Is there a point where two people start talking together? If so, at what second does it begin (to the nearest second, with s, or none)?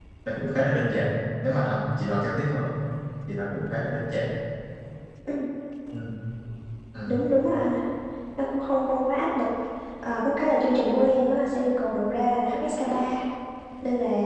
none